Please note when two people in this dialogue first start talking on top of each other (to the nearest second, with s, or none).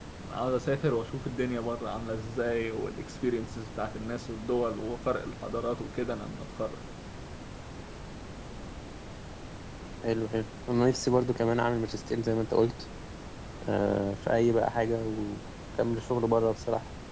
none